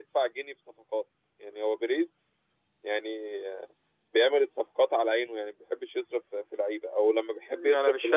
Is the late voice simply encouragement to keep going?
No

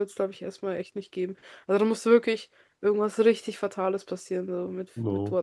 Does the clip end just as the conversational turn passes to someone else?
Yes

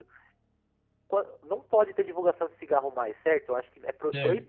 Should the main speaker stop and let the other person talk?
No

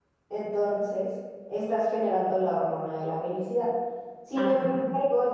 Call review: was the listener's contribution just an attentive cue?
Yes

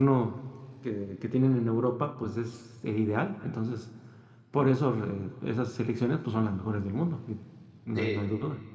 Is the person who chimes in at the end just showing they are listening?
No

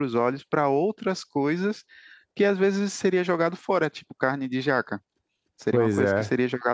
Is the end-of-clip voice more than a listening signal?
No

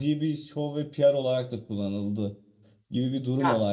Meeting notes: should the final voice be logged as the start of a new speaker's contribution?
No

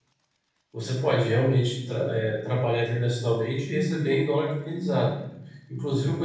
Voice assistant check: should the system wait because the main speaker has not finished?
Yes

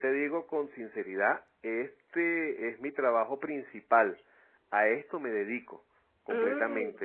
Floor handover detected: No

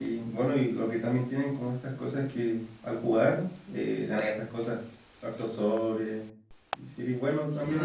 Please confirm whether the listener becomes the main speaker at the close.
No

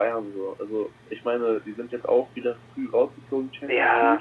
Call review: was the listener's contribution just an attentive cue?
No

